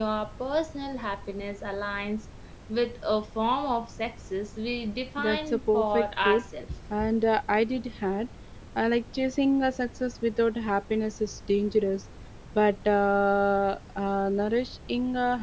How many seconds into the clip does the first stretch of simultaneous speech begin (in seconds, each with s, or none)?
5.2 s